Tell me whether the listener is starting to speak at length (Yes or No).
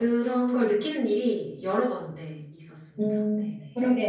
Yes